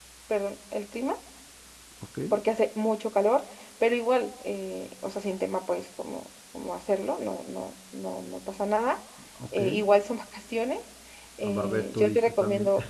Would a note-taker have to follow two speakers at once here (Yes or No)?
Yes